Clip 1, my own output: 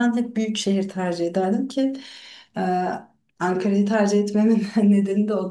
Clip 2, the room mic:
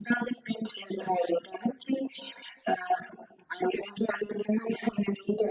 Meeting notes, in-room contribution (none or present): none